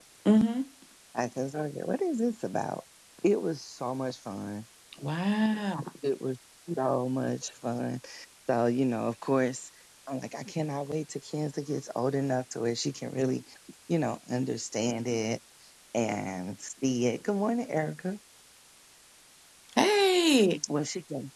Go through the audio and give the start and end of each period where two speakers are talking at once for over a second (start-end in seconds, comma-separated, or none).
none